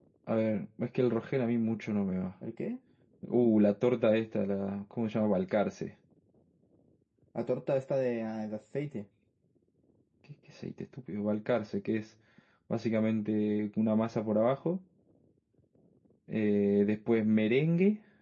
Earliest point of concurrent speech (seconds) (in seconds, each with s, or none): none